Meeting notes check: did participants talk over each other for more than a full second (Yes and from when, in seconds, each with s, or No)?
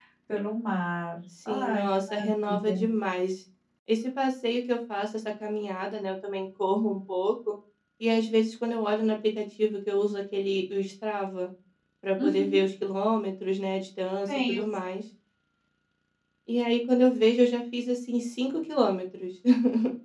Yes, from 1.5 s